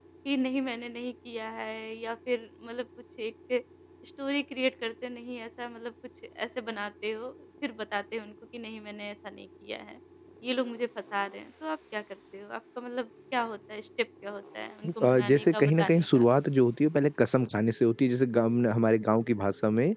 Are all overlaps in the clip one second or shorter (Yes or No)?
No